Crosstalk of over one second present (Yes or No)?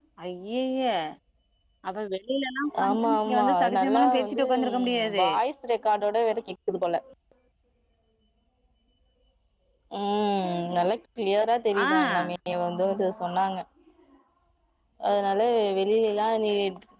Yes